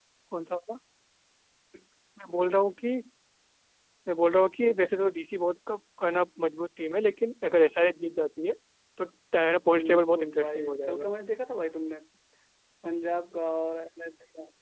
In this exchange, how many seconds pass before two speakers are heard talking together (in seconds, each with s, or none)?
9.7 s